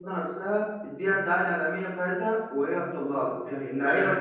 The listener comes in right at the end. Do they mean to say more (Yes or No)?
No